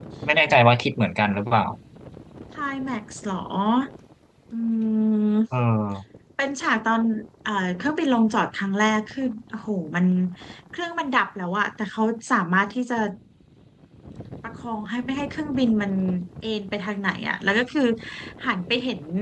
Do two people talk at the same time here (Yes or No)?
No